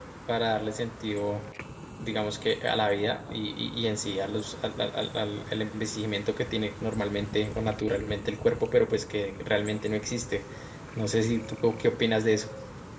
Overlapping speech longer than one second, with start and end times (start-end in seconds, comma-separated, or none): none